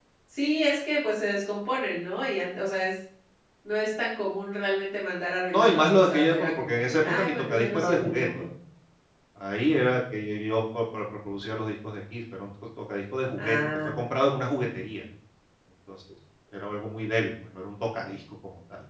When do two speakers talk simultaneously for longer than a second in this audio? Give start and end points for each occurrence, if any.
5.5-8.3

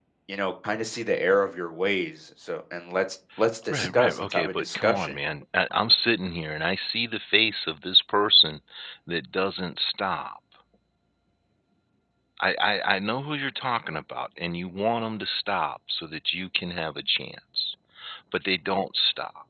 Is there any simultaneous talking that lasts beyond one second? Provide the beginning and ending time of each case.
3.7-5.2

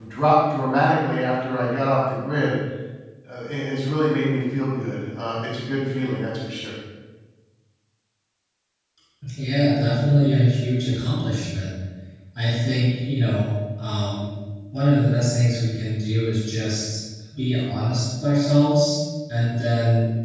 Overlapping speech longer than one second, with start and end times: none

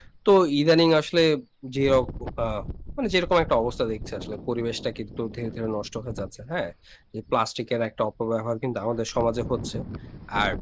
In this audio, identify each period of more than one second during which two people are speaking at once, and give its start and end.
none

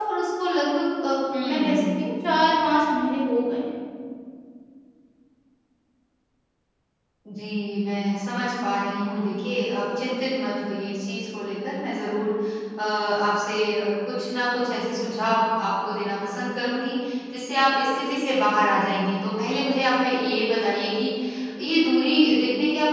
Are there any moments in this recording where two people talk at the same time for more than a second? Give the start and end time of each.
none

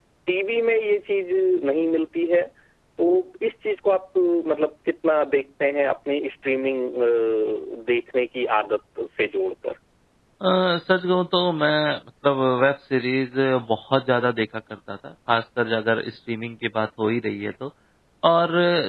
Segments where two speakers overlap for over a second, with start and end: none

